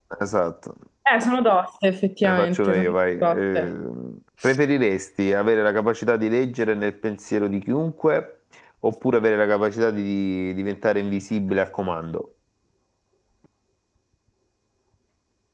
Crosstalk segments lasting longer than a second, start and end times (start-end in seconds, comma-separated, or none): 2.2-3.7